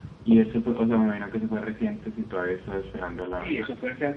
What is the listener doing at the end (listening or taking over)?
taking over